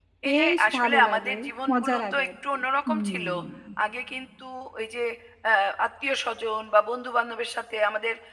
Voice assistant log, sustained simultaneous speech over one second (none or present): present